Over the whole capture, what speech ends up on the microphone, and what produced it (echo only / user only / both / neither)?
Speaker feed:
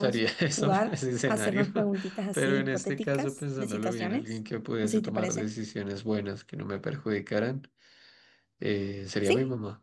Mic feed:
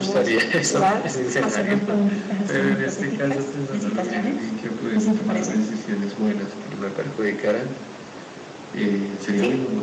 echo only